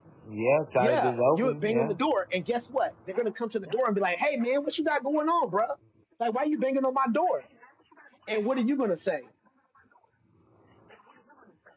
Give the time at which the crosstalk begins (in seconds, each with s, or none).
0.8 s